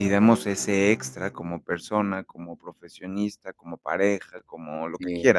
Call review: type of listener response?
listening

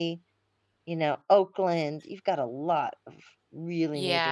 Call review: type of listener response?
taking over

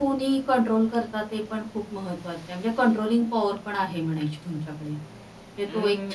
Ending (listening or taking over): taking over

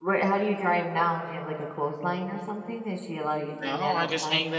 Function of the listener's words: taking over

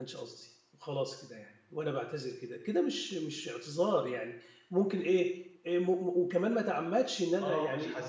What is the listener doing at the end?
taking over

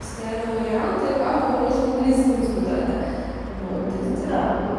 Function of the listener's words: taking over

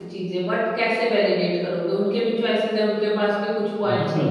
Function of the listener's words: taking over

